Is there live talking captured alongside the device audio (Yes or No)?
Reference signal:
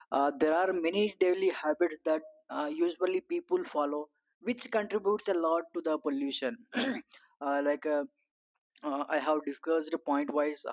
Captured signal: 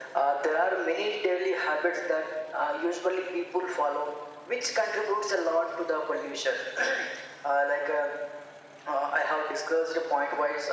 No